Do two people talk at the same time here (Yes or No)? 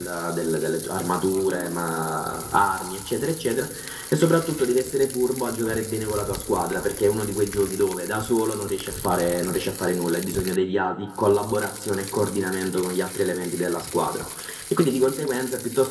No